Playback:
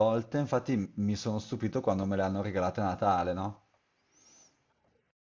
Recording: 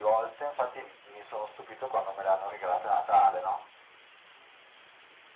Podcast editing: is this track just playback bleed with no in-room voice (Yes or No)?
Yes